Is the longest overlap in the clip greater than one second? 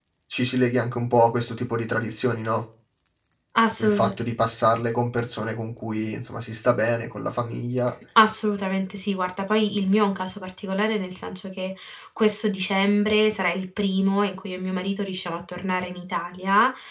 No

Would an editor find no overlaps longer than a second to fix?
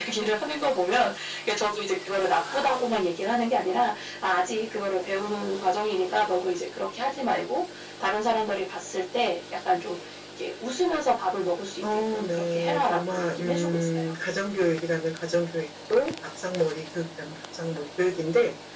No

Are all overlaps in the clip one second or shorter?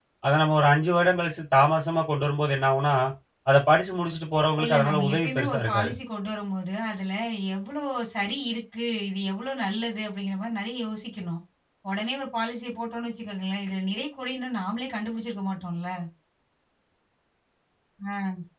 No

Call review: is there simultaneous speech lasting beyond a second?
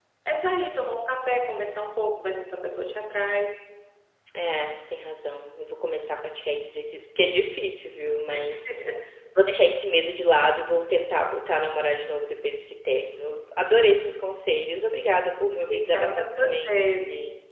Yes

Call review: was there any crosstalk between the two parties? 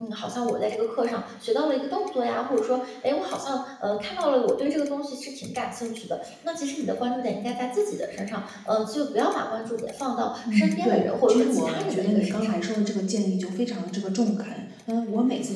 Yes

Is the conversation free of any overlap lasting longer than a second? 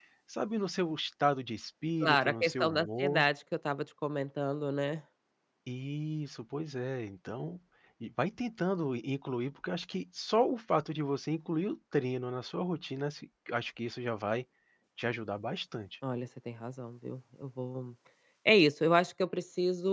No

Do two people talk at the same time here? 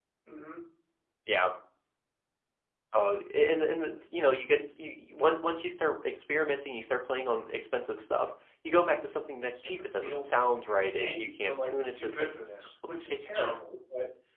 Yes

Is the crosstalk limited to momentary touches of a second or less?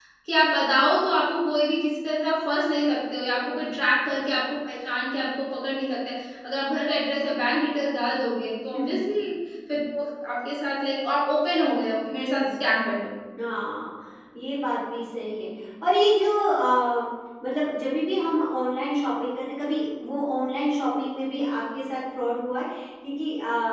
Yes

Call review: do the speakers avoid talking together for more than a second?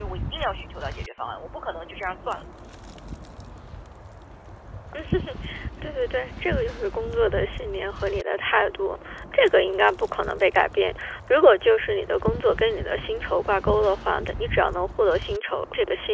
Yes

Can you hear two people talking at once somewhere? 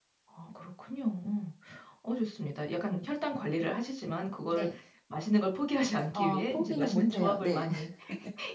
Yes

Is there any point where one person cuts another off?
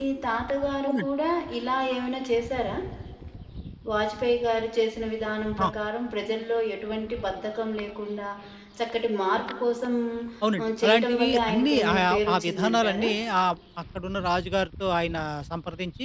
Yes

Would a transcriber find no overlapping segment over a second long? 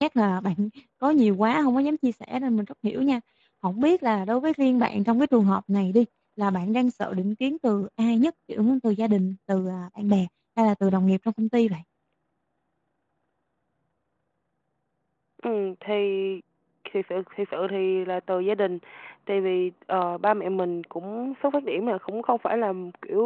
Yes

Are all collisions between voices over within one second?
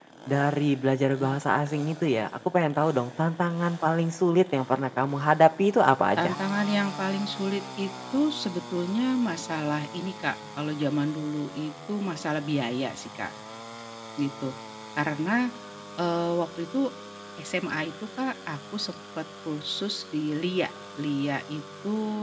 Yes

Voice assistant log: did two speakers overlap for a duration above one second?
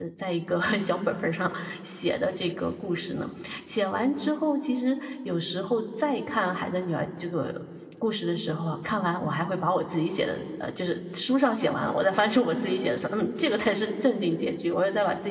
No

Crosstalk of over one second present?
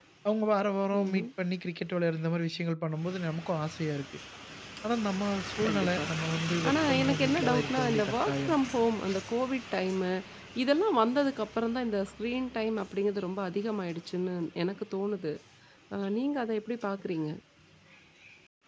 Yes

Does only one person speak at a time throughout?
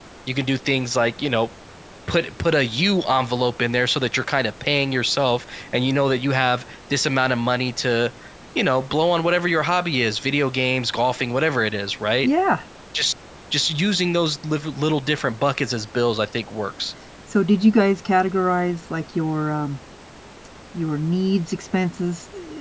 Yes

